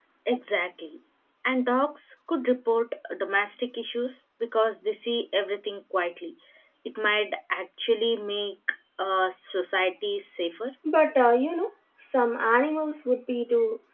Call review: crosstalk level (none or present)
none